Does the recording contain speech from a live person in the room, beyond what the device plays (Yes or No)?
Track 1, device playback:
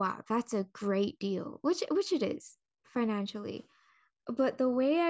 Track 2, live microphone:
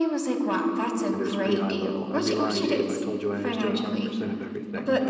Yes